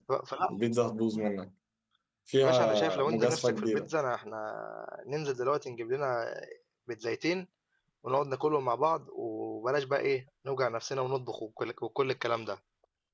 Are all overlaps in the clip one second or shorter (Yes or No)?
No